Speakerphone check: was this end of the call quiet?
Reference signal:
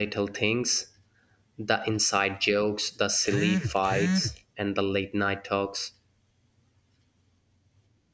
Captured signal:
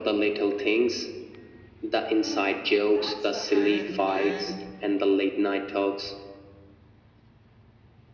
No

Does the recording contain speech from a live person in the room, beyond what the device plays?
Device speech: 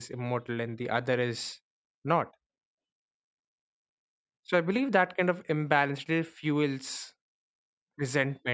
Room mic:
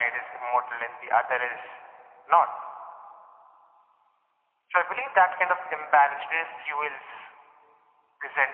No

